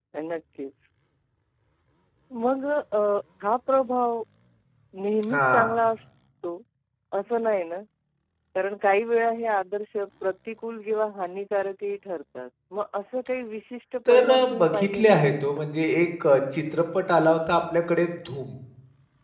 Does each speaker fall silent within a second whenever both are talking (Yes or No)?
No